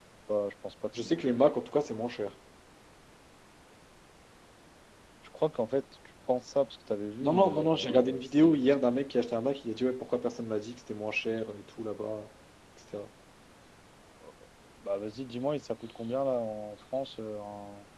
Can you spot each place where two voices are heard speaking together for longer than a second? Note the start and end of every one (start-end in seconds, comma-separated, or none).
7.2-8.7